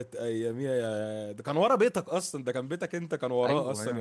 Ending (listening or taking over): taking over